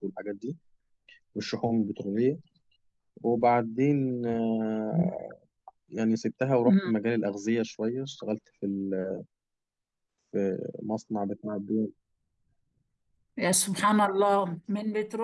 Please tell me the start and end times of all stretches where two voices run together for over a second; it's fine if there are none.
none

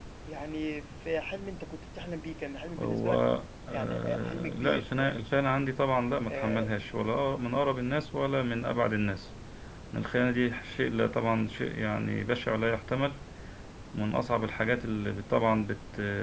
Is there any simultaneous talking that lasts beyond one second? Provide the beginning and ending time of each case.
3.7-5.2

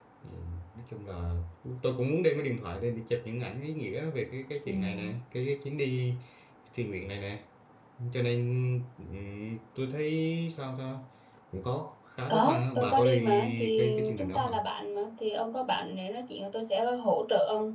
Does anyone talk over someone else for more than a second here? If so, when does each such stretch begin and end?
12.3-14.6

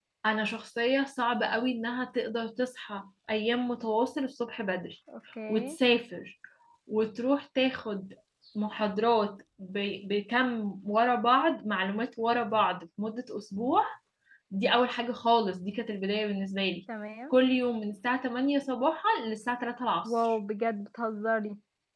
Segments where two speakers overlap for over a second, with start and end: none

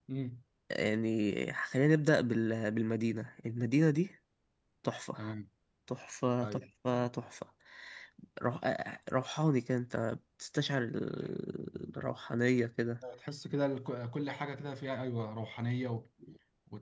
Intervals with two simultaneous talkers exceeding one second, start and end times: none

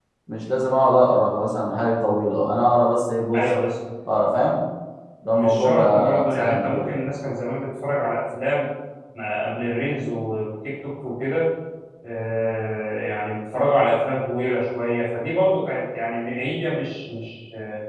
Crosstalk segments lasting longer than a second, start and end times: 5.3-6.9

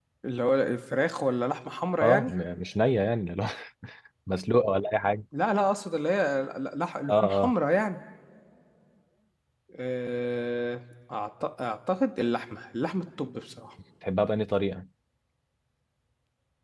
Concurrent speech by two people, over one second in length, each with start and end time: none

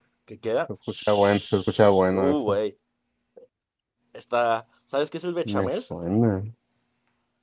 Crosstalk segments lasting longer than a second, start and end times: 0.9-2.6

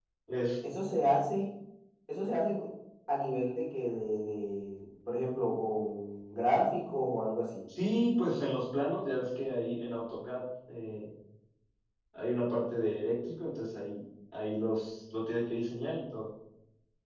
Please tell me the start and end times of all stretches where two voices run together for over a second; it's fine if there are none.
none

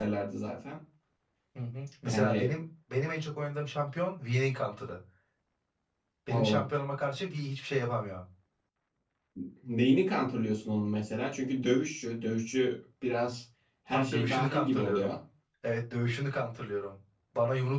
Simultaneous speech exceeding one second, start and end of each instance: 13.9-15.1

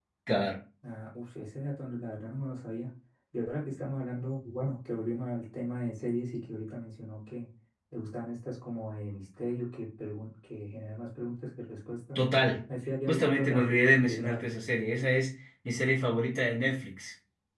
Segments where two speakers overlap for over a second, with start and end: 13.1-14.4

